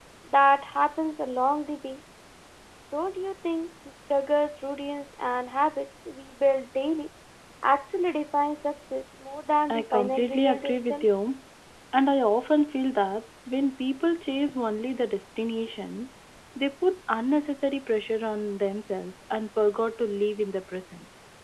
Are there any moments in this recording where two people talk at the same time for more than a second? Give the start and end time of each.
9.7-11.0

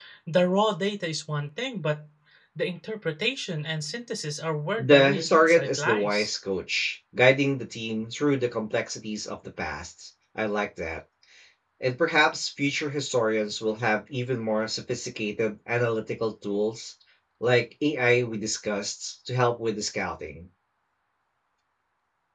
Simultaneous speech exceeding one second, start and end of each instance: 4.8-6.3

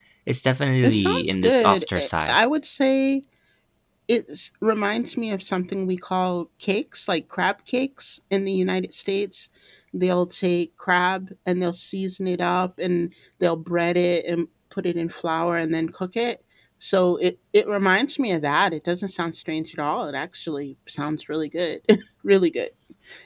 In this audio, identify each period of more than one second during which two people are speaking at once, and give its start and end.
0.8-2.4

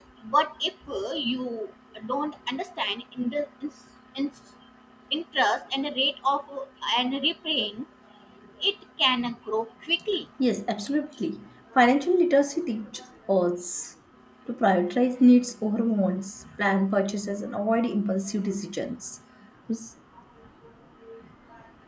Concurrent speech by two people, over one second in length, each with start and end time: none

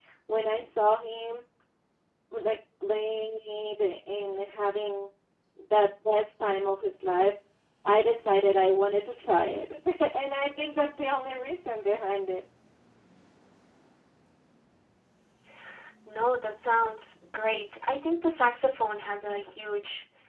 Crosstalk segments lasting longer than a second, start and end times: none

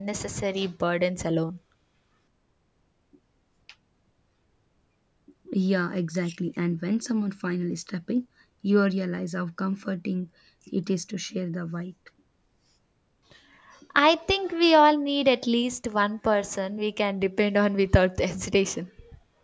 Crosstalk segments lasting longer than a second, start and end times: none

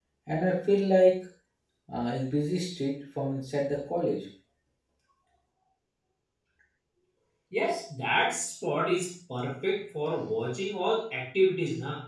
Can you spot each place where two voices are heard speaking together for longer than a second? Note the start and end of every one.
none

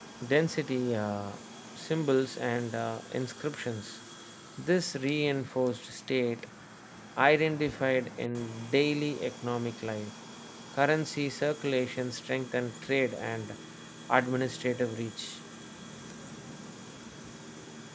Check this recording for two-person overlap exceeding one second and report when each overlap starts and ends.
none

